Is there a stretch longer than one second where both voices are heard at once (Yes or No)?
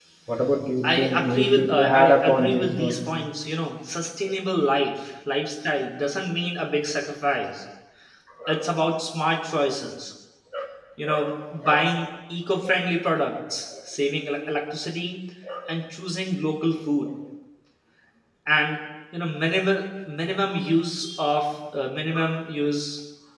Yes